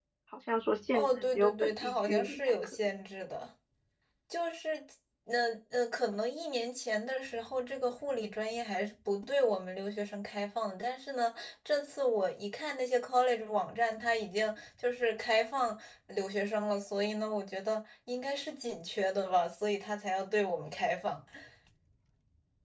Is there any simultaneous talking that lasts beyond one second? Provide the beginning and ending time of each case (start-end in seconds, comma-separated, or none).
0.9-2.8